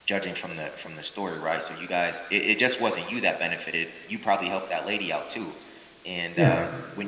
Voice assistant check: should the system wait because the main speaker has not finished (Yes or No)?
Yes